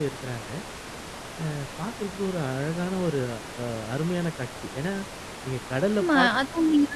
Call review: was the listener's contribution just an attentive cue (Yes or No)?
No